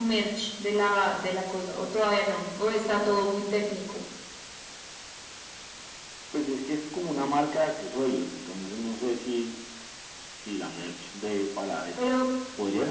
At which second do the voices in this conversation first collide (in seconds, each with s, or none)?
none